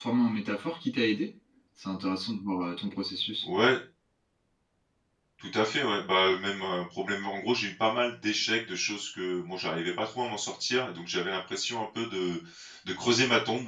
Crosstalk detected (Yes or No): No